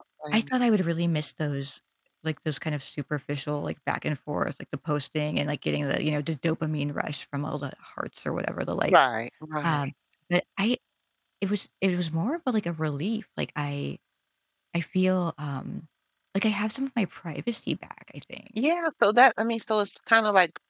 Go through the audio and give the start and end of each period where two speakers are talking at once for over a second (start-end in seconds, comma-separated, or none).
none